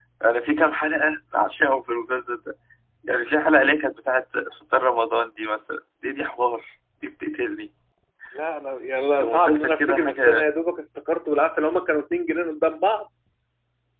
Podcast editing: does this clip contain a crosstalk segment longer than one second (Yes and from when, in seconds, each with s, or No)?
Yes, from 9.2 s